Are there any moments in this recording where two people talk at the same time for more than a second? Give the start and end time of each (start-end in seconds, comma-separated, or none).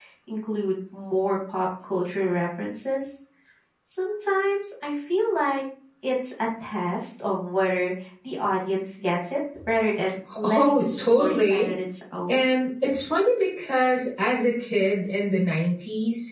10.4-11.7